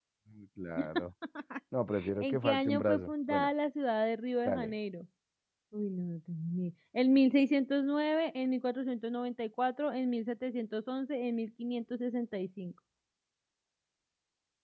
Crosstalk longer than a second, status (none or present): present